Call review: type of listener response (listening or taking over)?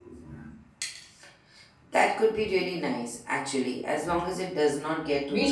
taking over